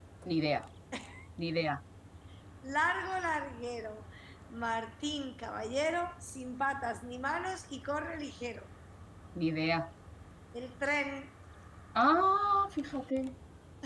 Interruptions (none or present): none